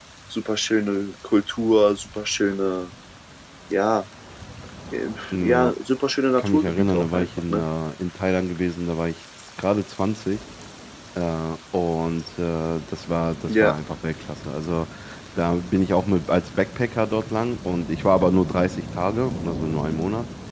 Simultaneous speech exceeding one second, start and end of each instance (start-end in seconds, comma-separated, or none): 6.4-7.7